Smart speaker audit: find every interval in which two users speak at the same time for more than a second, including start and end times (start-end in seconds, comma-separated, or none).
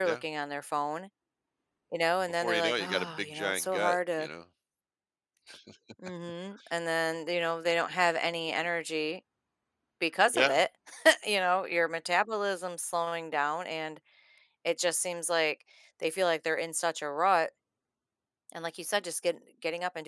2.3-4.3